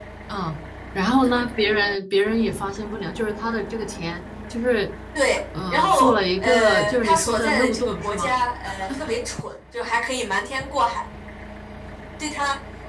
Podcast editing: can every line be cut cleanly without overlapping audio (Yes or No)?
No